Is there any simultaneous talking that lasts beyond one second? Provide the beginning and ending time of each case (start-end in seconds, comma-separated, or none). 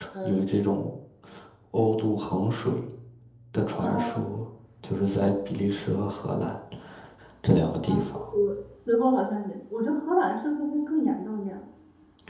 none